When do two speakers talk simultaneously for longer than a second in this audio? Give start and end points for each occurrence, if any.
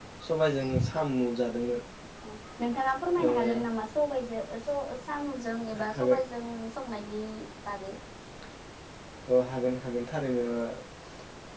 none

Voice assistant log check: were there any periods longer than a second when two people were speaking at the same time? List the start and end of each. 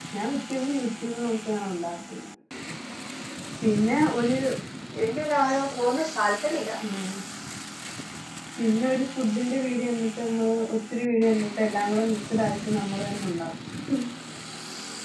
none

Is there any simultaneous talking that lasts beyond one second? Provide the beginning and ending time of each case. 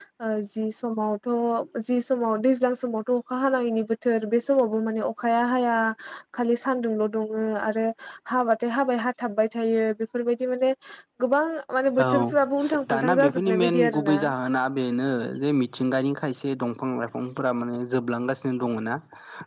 12.9-14.2

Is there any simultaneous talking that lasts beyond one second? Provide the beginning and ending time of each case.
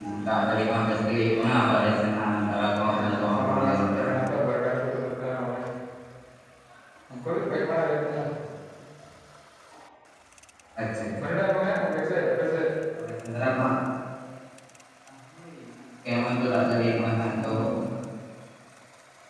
2.9-4.1

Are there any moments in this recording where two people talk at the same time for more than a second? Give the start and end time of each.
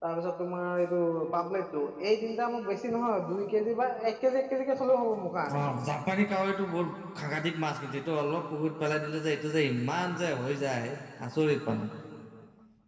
none

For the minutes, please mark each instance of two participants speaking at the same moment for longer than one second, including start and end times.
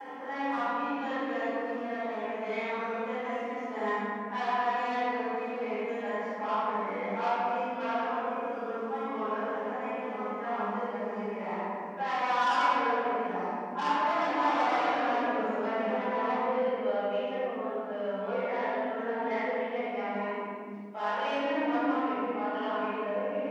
14.7-16.3

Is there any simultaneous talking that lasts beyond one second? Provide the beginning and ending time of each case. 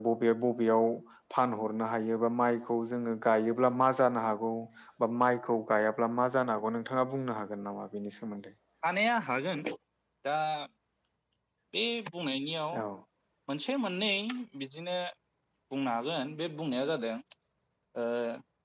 none

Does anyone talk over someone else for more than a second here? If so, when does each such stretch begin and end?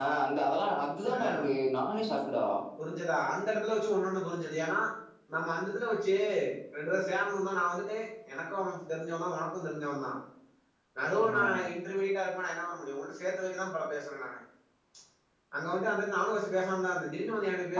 none

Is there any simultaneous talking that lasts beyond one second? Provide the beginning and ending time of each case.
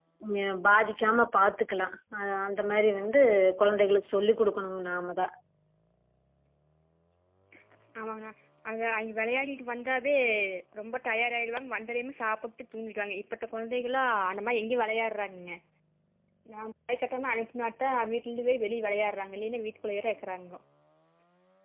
none

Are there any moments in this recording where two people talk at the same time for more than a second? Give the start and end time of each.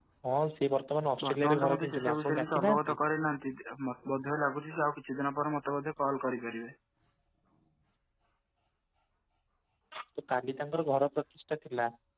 1.2-3.0

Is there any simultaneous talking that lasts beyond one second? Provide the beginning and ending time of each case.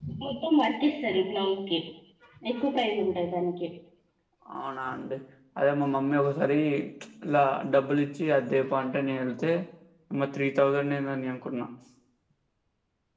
none

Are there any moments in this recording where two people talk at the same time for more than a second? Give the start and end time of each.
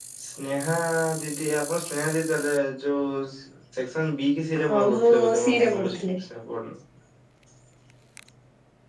4.6-6.2

